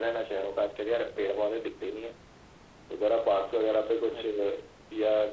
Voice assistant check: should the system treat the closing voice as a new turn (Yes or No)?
No